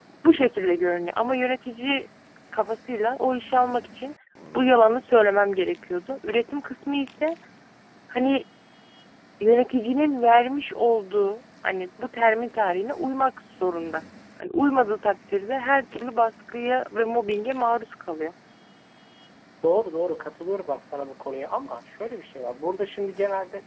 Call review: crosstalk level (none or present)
none